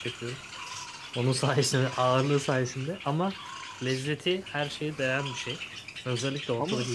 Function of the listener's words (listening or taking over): listening